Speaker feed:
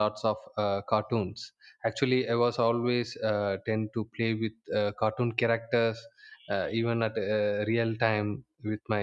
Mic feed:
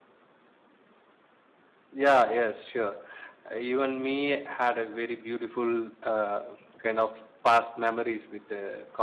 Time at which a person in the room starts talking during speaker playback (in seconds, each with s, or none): 1.9 s